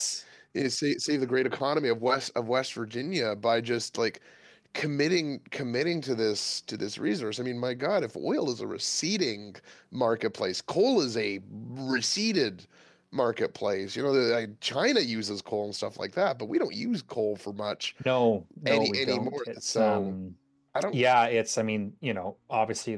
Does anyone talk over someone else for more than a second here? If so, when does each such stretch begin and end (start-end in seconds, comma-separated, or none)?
18.7-20.1